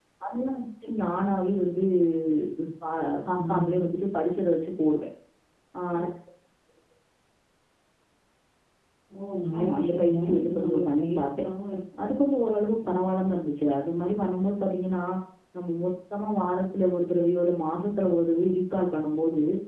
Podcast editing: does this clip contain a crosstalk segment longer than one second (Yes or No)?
Yes